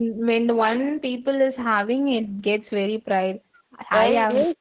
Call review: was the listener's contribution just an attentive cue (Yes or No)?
No